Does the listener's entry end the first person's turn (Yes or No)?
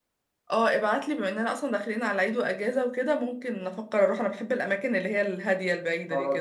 Yes